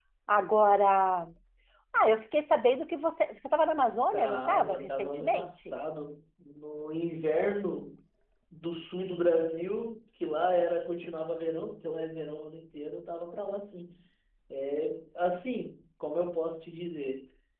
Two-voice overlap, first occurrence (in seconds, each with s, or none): 4.1 s